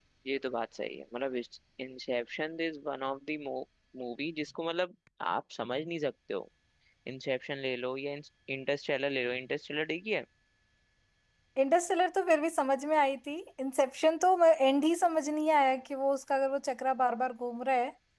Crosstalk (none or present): none